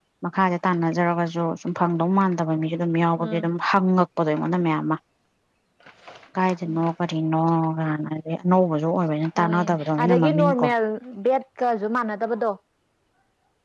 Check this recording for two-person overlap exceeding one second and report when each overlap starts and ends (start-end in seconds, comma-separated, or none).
9.4-10.7